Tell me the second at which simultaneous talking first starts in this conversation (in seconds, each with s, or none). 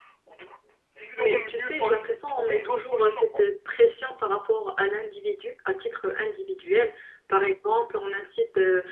1.2 s